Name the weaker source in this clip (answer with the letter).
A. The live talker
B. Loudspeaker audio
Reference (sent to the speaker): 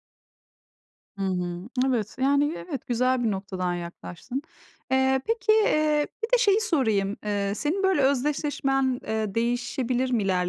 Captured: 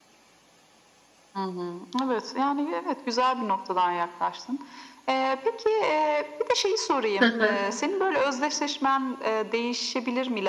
B